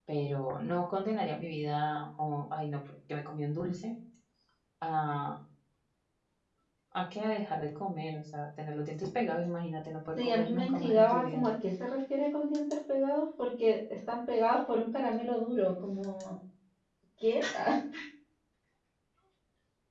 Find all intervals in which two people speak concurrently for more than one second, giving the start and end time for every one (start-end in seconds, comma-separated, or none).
10.2-11.4